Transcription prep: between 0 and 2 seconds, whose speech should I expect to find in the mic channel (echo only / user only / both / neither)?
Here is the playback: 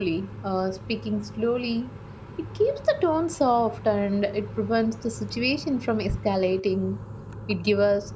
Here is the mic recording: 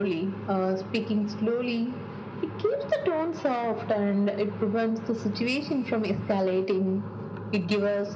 echo only